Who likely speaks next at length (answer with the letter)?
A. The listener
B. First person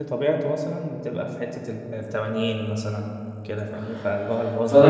A